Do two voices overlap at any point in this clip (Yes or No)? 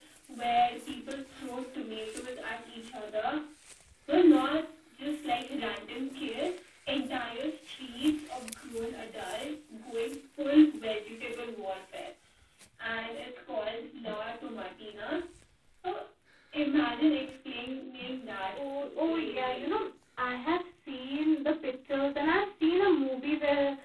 Yes